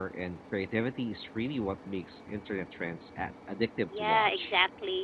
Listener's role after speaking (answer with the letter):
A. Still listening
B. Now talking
B